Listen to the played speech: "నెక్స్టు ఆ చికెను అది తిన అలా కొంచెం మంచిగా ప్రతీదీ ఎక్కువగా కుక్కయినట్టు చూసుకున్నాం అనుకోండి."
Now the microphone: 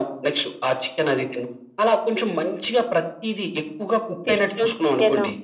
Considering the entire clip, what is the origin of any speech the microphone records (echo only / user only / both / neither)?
both